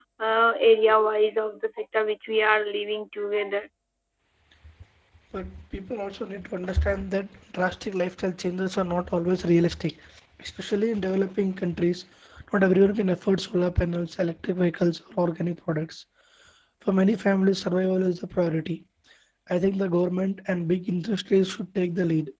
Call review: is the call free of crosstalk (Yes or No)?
Yes